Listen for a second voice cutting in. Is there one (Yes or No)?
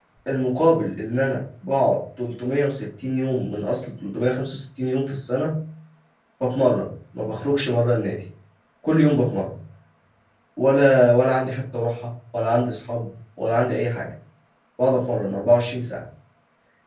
No